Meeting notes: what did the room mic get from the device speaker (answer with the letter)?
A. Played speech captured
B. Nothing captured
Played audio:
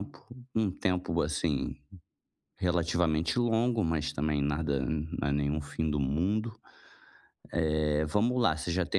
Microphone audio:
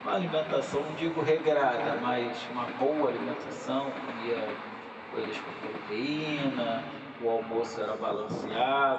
B